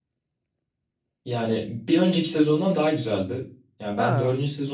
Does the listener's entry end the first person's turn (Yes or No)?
No